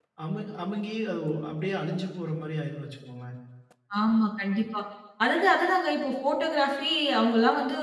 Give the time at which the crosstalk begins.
none

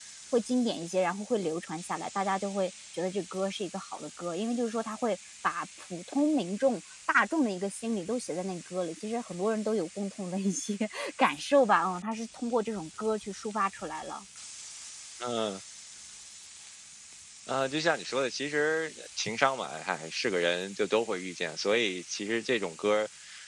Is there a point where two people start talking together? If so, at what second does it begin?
none

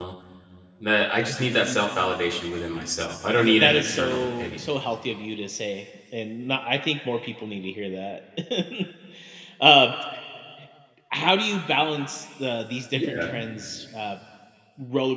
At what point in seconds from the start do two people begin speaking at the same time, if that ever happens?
3.4 s

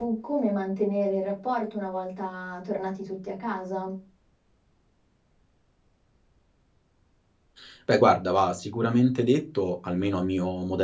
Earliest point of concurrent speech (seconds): none

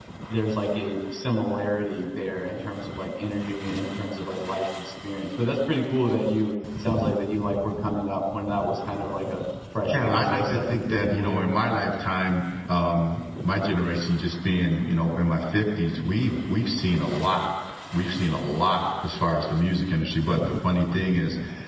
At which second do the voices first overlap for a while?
9.9 s

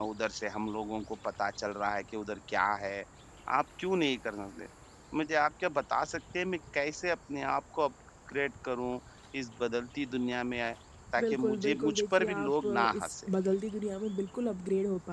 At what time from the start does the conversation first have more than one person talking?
11.2 s

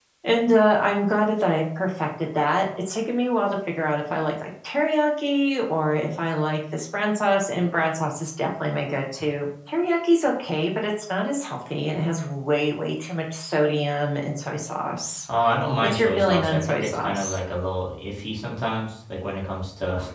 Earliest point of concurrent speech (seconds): 15.8 s

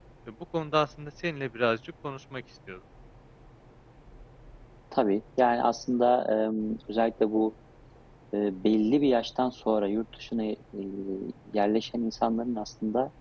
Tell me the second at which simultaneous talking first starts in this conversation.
none

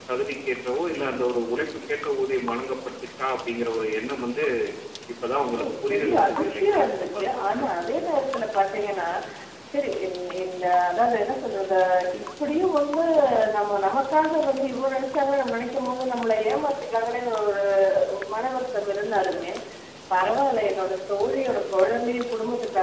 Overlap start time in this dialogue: 5.7 s

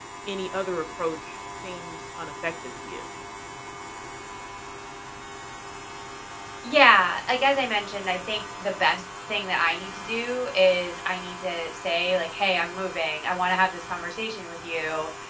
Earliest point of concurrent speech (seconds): none

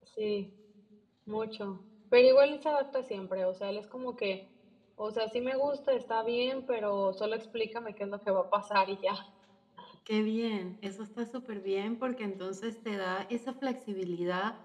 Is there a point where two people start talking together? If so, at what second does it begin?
none

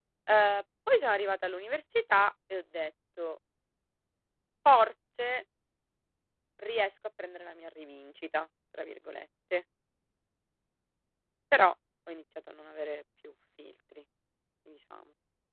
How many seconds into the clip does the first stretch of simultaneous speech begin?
none

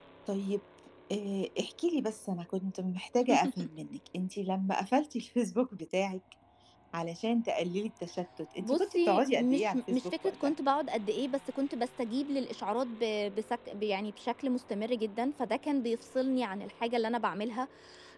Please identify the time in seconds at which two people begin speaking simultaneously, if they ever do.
8.6 s

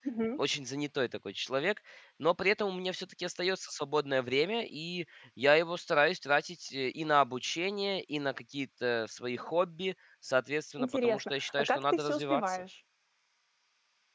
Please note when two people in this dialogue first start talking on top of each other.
10.8 s

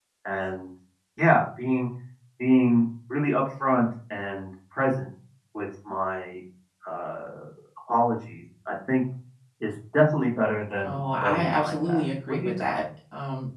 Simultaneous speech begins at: 10.8 s

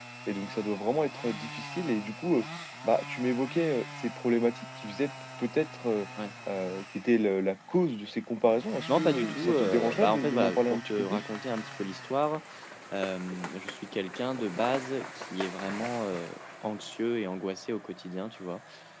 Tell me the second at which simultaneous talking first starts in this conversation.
8.9 s

